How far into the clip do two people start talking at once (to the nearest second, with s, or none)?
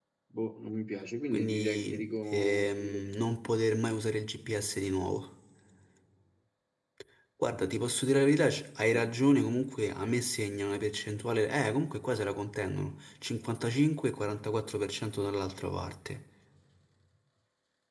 1 s